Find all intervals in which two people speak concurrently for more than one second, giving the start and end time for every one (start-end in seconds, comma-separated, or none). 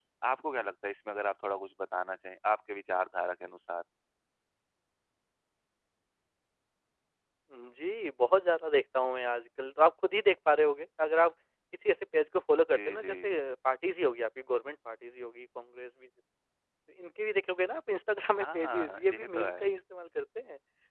18.4-19.7